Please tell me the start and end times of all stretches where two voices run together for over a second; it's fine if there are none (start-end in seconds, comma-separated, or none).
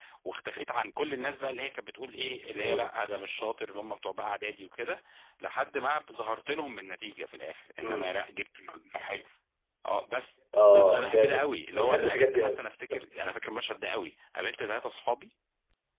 10.7-12.6